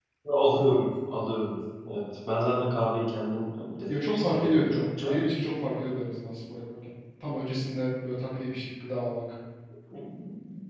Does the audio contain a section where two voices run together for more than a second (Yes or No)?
Yes